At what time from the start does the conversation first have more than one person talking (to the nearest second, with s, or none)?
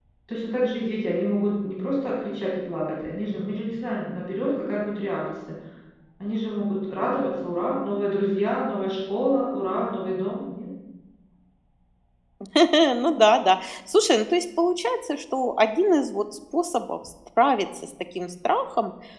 none